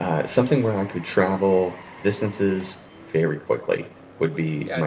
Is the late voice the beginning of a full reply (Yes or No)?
Yes